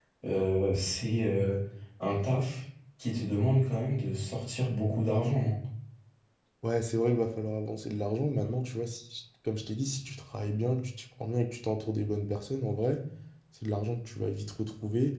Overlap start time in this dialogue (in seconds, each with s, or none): none